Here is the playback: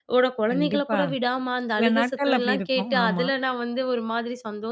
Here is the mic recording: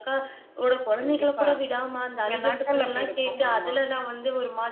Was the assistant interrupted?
No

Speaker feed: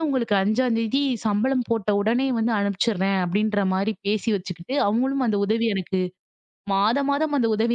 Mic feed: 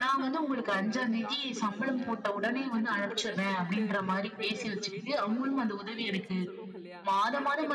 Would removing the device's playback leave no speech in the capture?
No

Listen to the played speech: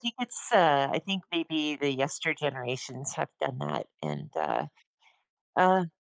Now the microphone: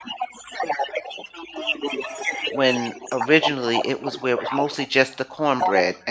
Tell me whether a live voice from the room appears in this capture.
Yes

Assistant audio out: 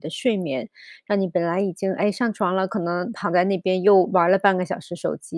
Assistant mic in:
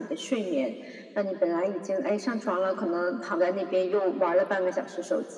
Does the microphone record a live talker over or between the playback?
No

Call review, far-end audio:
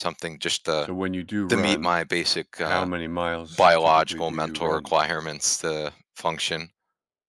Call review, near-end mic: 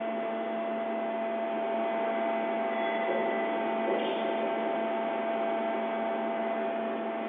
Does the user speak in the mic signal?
No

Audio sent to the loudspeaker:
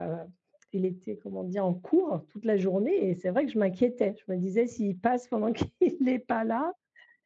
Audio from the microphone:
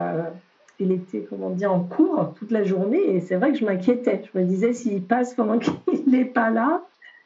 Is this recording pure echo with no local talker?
Yes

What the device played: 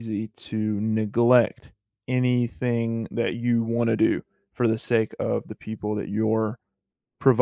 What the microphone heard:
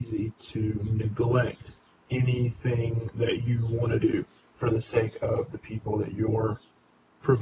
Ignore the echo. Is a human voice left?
No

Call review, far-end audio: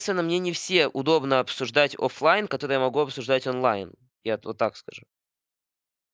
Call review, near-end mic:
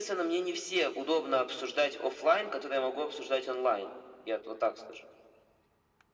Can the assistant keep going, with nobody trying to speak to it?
Yes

